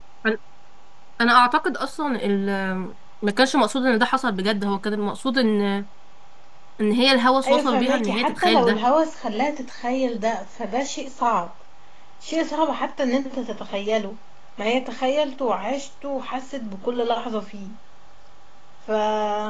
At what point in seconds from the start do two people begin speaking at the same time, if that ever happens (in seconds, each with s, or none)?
7.5 s